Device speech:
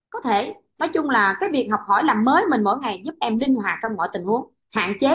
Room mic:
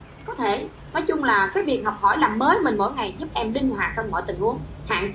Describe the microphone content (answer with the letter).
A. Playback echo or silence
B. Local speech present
A